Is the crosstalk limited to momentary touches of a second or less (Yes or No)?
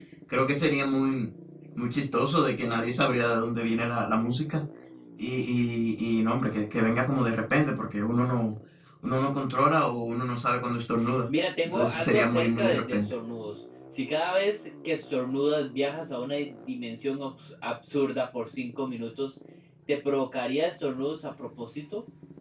No